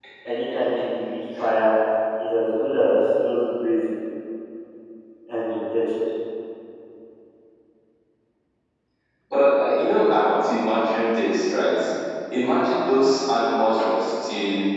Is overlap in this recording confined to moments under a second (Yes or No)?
Yes